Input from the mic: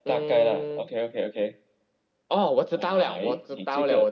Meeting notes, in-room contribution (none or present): none